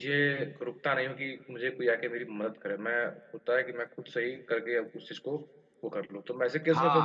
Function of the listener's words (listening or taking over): taking over